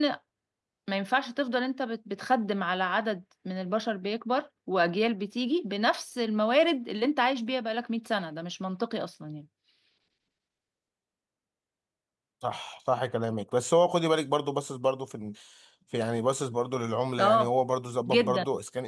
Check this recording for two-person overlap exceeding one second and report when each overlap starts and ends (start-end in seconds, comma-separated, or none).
none